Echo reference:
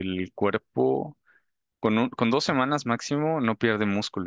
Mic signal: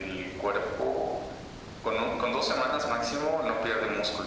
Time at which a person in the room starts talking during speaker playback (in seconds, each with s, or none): none